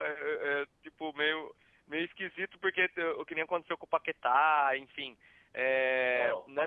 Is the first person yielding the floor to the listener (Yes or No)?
Yes